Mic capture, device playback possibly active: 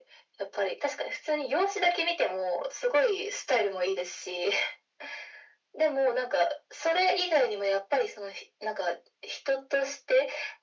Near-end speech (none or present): none